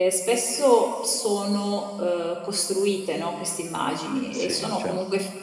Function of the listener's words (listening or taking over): listening